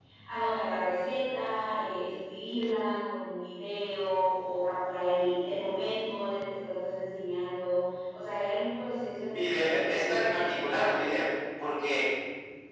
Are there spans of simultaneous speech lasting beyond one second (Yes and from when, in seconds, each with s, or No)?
Yes, from 9.3 s